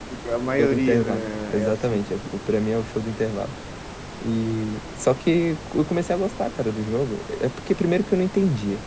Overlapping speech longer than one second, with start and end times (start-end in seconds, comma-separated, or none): 0.6-2.0